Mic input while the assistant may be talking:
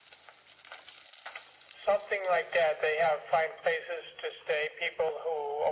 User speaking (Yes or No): No